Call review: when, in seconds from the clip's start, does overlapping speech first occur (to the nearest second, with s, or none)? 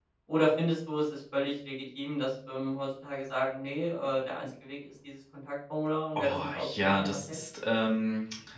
6 s